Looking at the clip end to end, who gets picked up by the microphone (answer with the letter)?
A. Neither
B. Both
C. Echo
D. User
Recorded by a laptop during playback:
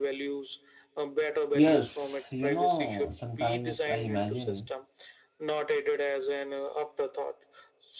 B